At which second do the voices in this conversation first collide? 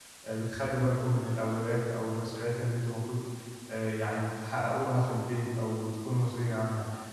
none

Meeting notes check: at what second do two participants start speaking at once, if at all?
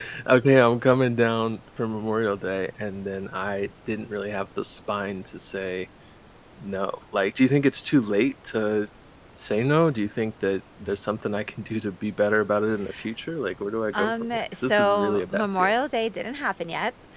13.9 s

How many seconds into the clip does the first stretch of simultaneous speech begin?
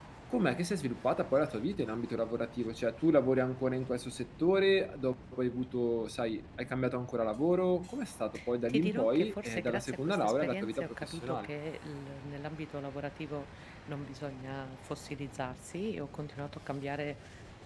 8.7 s

